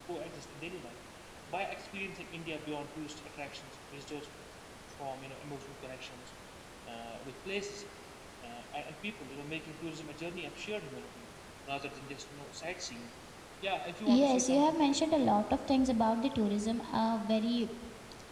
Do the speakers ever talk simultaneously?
Yes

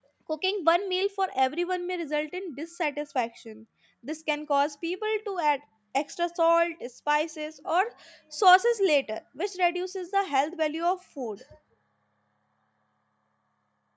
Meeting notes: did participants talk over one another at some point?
No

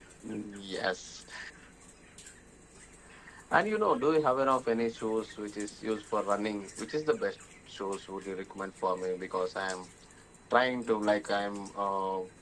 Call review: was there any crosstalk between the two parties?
No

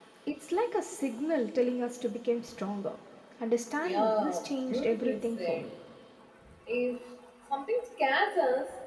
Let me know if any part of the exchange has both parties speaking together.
Yes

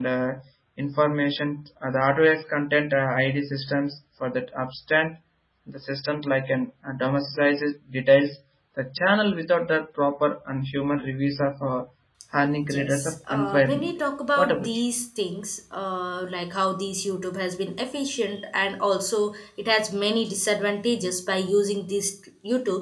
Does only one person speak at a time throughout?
No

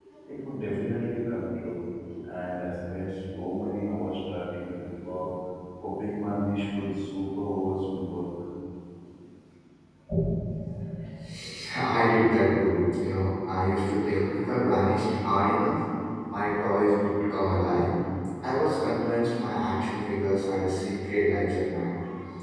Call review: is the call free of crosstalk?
Yes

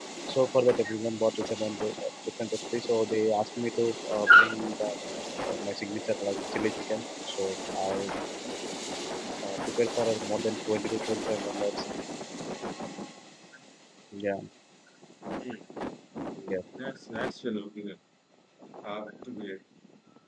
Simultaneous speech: No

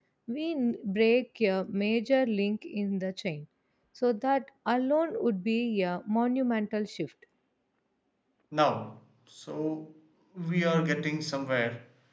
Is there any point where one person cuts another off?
No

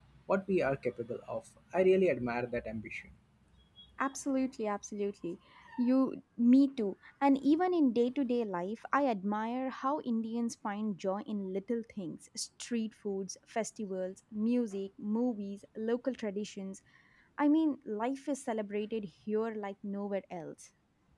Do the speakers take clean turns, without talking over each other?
Yes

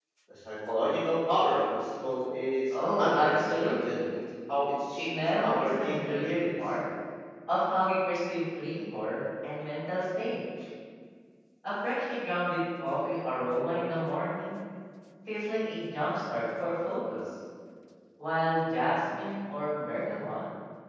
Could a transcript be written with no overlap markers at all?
No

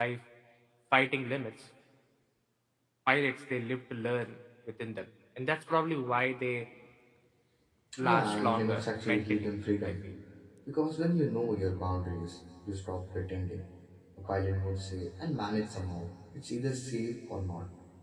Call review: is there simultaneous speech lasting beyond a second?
Yes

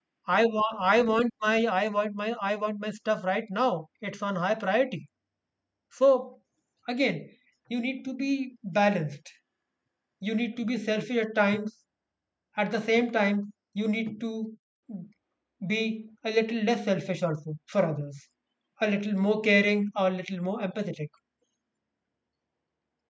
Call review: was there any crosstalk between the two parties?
No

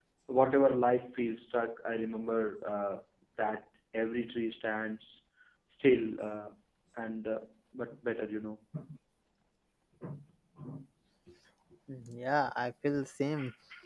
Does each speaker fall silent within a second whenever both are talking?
Yes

